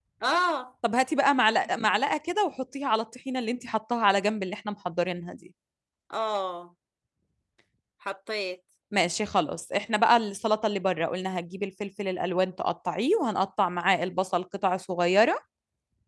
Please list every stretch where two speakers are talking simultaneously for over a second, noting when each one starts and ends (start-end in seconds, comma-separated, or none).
none